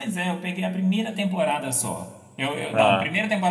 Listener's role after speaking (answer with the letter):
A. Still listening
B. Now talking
A